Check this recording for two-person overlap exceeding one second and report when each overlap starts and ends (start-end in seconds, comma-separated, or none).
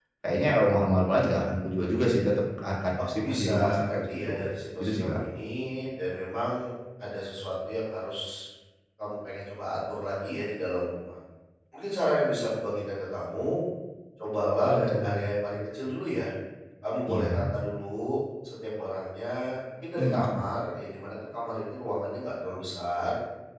3.1-4.4